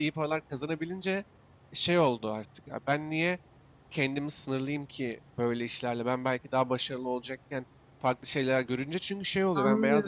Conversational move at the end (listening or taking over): listening